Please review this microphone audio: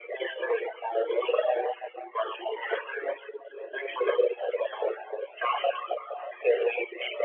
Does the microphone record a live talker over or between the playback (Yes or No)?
No